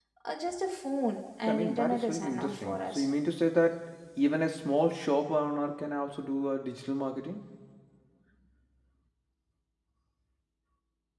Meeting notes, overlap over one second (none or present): present